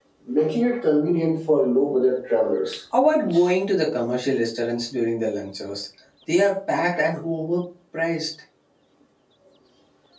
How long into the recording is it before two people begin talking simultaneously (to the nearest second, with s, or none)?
none